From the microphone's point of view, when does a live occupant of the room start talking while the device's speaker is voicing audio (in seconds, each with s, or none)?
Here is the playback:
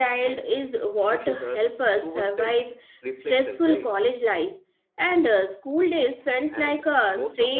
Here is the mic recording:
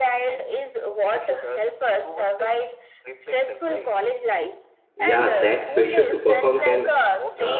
5.0 s